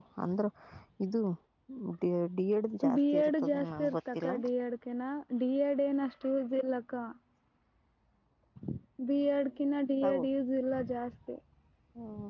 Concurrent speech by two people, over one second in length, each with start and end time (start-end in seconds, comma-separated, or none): 2.9-4.3